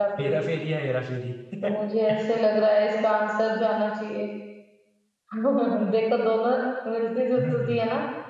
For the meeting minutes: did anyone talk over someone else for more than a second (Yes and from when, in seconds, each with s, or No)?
No